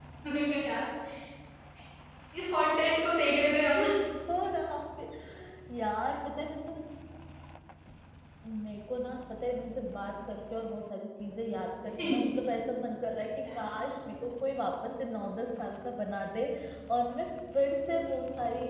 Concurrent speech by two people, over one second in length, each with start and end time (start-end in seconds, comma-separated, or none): none